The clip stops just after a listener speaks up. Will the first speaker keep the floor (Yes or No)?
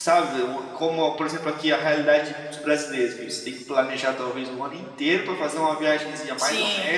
Yes